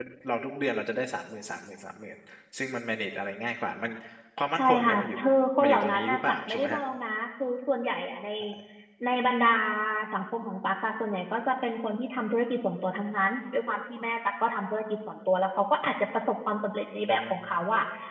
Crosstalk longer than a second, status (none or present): present